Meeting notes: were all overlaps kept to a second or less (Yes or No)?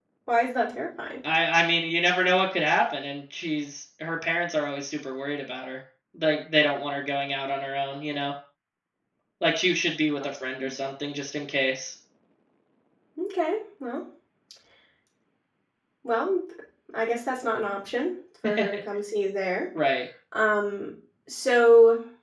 Yes